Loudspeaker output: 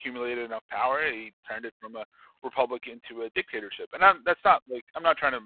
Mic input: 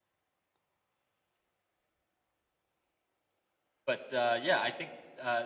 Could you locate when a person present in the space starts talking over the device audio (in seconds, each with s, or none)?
3.9 s